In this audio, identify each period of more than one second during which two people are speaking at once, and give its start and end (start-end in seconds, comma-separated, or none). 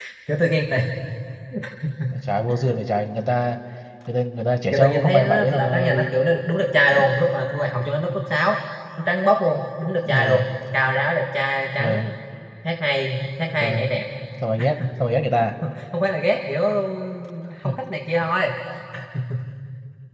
4.7-6.0